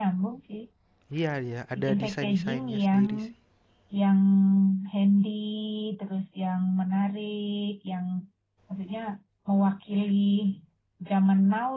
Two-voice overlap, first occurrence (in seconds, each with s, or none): 1.8 s